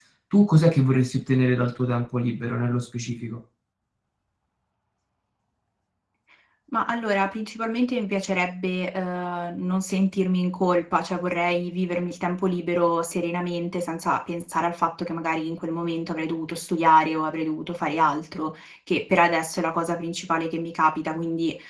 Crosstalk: none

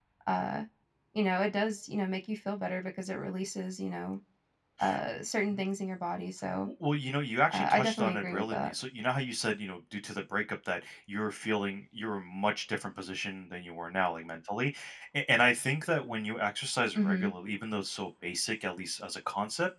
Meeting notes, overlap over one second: present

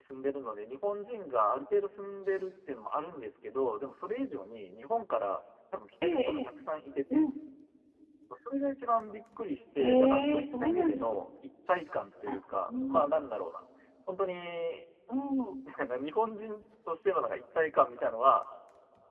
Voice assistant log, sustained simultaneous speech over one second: present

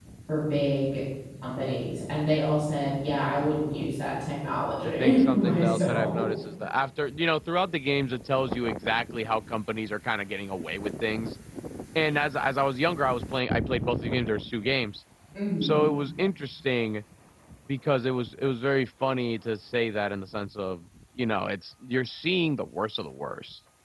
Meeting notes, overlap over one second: present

